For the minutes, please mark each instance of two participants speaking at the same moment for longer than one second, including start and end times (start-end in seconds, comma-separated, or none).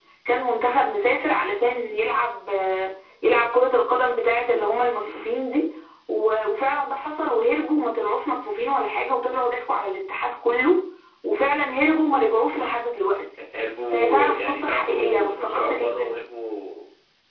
13.9-16.2